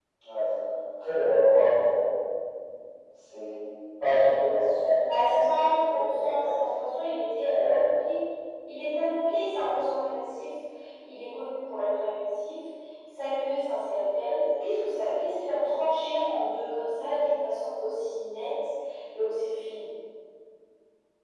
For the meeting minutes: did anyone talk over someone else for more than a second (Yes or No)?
Yes